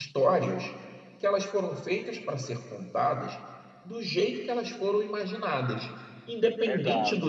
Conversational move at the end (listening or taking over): listening